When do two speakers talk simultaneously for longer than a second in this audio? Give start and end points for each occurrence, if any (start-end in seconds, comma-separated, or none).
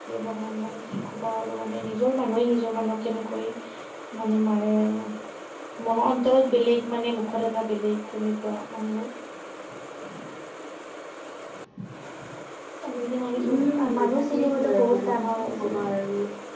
13.4-15.9